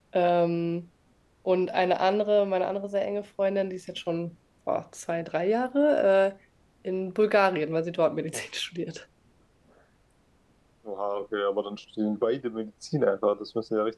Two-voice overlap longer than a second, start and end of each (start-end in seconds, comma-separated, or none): none